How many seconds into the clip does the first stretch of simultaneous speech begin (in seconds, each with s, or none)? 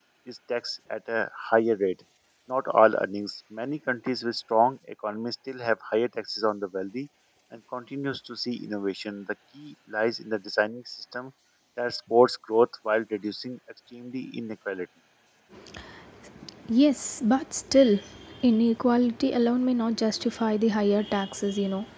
none